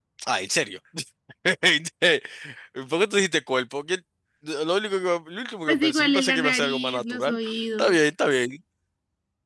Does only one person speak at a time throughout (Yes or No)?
No